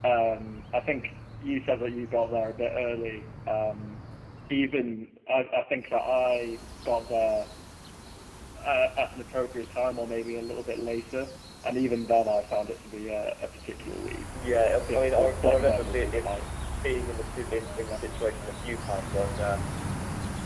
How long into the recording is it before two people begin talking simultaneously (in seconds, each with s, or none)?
14.8 s